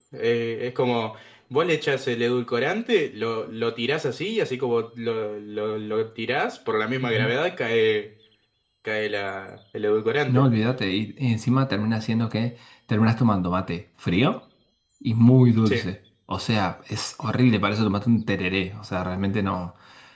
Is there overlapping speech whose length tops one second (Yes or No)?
No